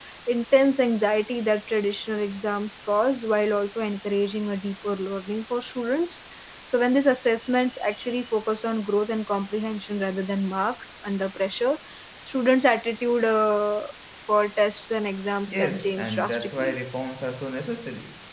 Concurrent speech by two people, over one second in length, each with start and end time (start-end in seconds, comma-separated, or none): 15.5-16.8